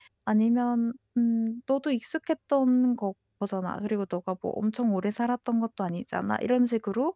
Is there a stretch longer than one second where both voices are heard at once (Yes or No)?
No